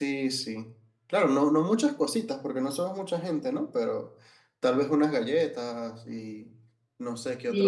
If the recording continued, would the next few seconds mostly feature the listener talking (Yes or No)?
Yes